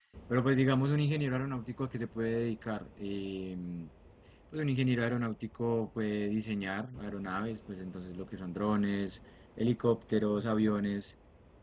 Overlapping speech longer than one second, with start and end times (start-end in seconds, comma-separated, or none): none